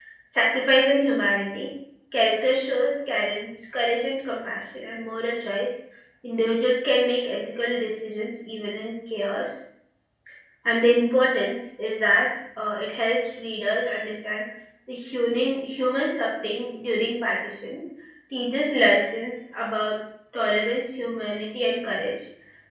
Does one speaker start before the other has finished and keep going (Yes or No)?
No